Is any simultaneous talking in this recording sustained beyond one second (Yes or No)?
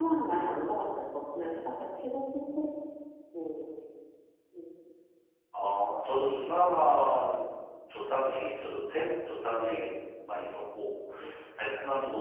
No